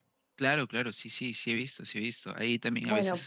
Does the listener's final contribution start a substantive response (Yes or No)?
No